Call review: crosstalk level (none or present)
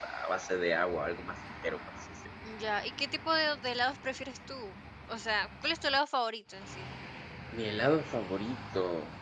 none